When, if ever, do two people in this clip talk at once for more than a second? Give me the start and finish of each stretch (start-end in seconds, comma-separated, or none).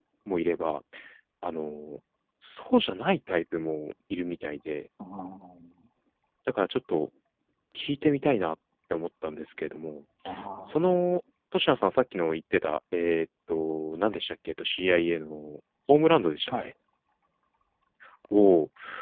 none